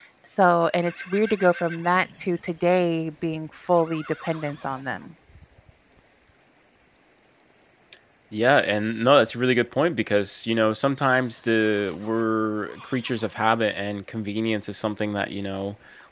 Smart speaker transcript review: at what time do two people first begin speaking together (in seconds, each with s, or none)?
none